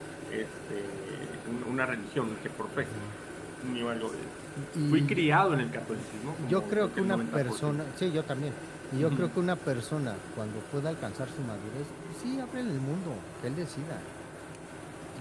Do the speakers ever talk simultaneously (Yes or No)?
Yes